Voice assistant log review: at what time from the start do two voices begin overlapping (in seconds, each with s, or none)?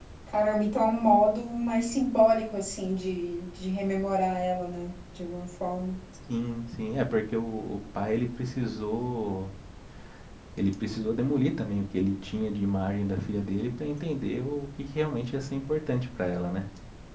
none